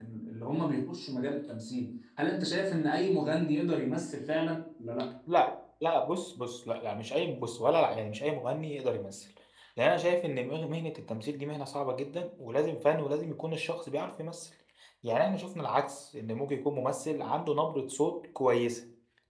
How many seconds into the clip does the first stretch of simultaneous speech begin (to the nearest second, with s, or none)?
none